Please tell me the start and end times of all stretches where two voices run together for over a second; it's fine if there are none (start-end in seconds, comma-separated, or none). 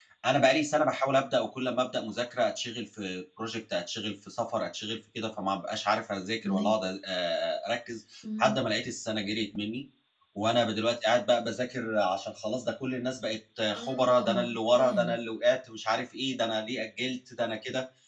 13.7-15.2